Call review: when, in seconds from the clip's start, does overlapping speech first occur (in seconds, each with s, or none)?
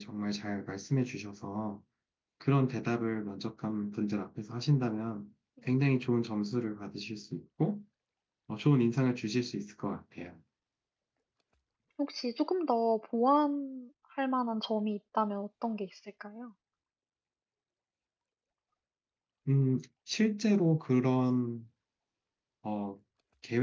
none